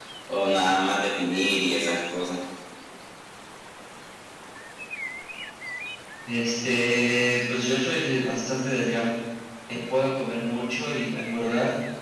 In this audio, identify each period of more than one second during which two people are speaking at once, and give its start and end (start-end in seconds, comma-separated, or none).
none